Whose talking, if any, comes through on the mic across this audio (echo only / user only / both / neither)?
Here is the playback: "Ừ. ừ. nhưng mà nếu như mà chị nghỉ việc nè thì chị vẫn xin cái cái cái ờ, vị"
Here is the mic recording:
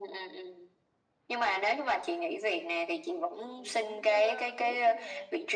both